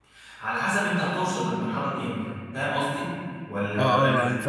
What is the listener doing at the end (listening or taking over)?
taking over